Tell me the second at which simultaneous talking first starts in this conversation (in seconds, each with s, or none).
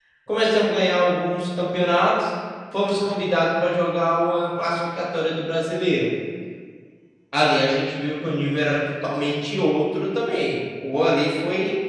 none